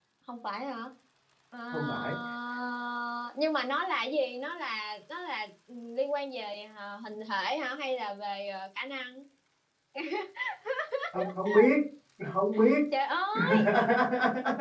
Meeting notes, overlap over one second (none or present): none